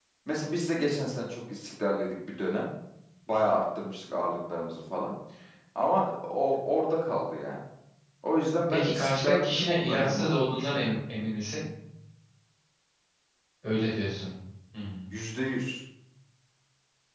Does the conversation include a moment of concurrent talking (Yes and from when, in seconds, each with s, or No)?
Yes, from 8.7 s